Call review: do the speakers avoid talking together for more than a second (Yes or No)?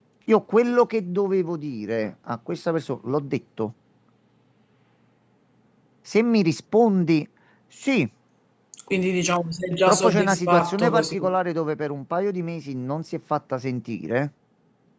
No